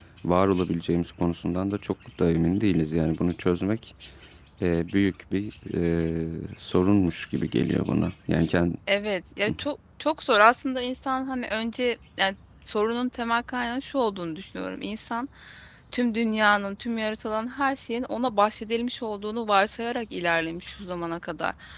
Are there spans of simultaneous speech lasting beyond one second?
No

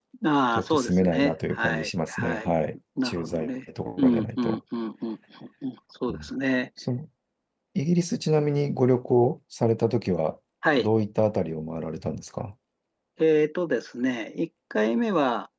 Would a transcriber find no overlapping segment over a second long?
No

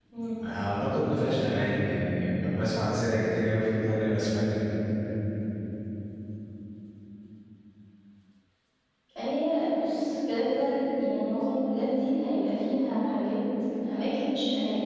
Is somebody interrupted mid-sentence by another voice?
No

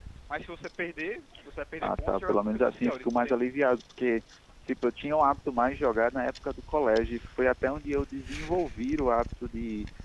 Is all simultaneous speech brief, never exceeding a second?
No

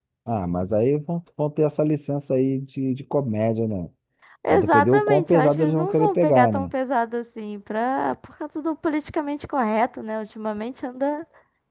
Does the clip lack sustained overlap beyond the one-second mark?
No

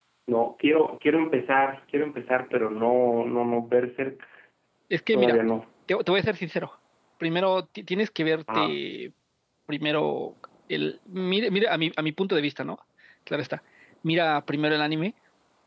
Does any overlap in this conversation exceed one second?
No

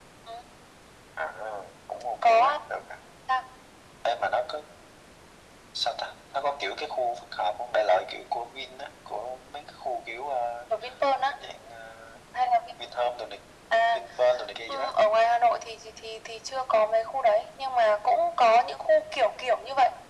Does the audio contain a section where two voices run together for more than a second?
No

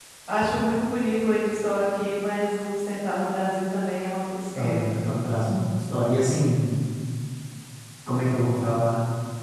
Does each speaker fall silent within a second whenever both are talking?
Yes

